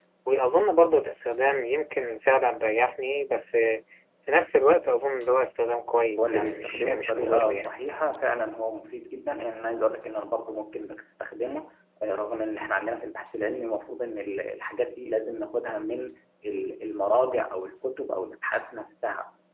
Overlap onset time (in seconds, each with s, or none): 6.2 s